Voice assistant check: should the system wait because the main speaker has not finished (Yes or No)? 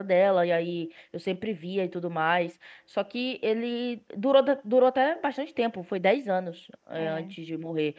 Yes